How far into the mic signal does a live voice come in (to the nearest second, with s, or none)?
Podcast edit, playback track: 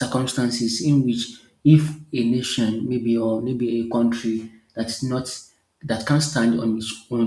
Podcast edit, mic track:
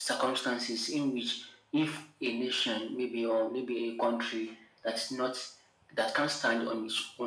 none